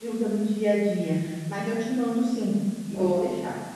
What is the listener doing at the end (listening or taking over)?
taking over